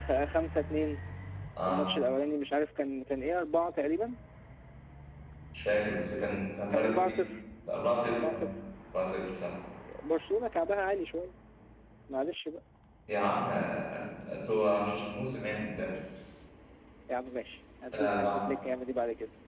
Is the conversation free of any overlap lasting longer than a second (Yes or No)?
Yes